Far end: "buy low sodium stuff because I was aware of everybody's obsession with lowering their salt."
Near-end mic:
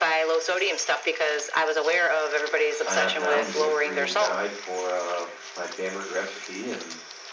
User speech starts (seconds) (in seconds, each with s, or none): 2.7 s